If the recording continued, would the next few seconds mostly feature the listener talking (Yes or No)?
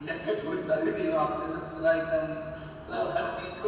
No